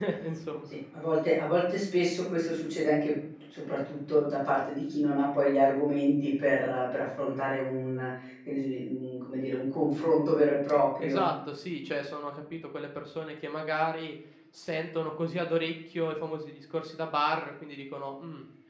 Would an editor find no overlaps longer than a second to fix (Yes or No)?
Yes